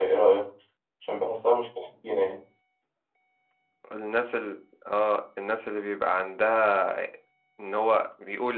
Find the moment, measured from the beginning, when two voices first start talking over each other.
none

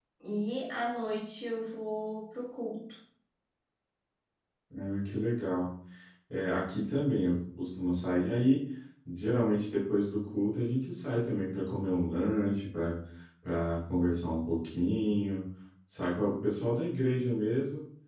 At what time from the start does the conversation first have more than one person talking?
none

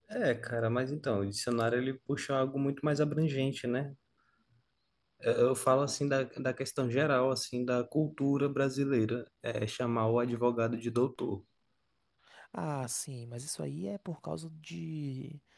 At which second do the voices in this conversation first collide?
none

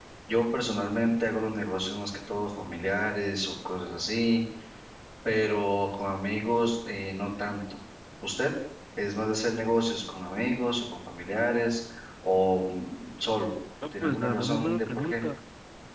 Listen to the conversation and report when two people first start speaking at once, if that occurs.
13.8 s

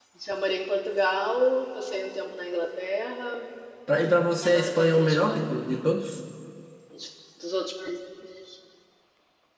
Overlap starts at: 4.4 s

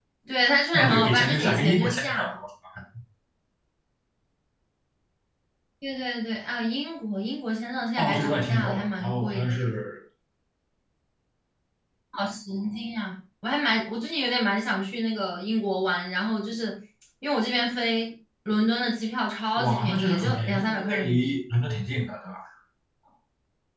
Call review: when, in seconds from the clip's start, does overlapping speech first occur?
0.7 s

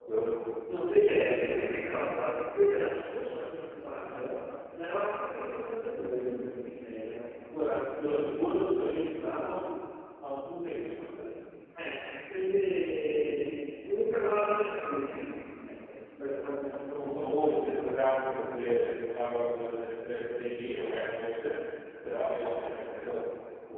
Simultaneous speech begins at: 0.8 s

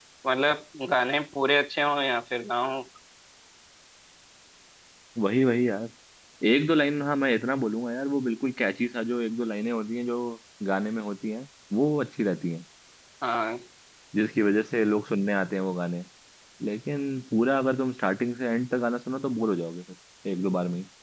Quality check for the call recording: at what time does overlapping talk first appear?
none

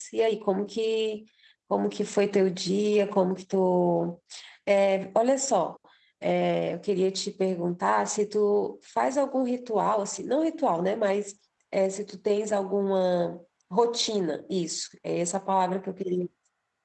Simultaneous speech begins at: none

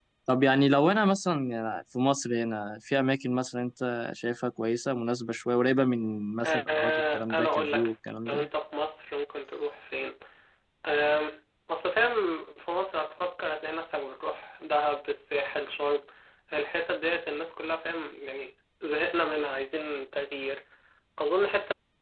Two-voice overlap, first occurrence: 6.4 s

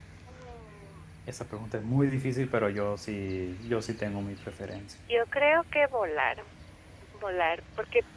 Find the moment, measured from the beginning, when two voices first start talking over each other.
none

